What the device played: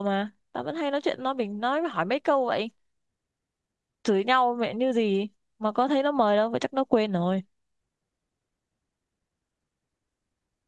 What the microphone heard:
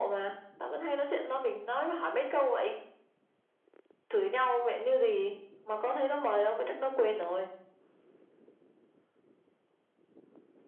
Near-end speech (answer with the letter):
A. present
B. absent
B